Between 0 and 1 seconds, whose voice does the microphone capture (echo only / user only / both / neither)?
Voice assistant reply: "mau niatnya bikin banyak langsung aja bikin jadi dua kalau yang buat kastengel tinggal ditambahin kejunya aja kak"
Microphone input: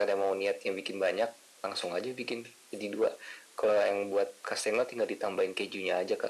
echo only